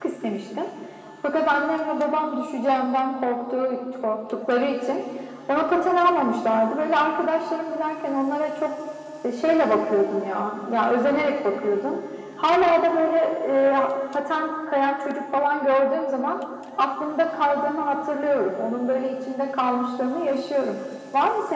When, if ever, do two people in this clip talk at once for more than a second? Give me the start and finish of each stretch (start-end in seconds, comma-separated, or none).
none